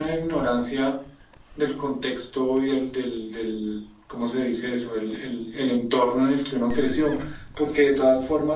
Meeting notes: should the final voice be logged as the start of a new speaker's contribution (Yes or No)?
No